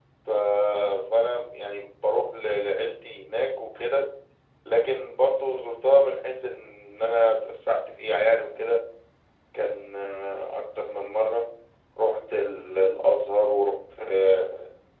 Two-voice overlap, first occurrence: none

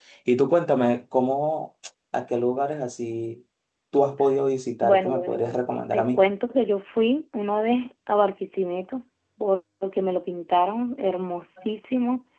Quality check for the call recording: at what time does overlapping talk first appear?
5 s

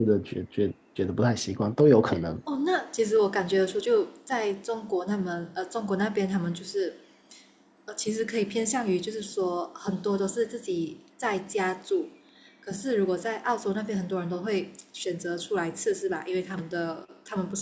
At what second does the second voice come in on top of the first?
none

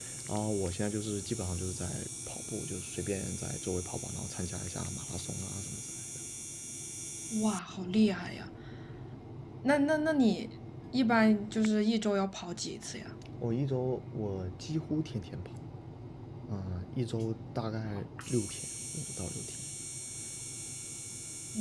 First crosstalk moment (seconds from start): none

